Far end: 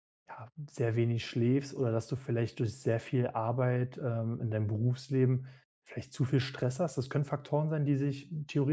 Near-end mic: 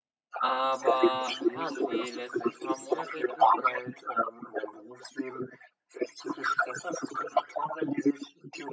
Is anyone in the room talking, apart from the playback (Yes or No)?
Yes